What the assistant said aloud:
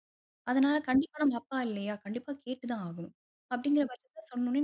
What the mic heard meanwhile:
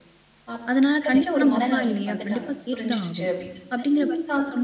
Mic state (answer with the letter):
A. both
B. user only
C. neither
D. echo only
A